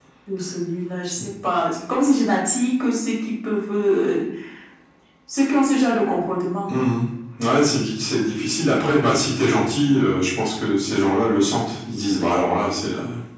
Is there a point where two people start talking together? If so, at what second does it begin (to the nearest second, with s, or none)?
none